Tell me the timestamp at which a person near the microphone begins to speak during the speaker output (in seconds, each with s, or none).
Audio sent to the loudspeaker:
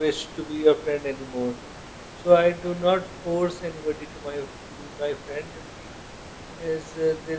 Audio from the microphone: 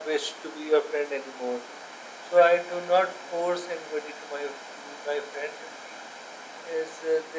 none